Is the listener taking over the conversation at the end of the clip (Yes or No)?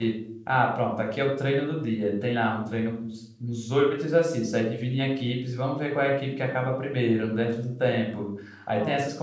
No